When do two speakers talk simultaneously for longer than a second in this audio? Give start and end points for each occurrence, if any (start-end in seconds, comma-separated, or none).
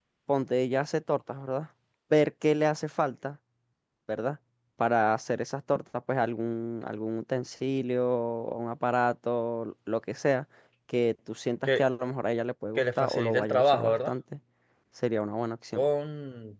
12.8-14.1